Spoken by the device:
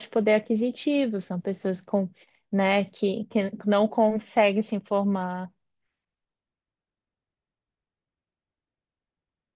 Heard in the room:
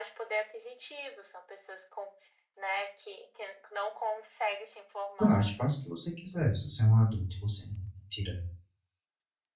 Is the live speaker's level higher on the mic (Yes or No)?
Yes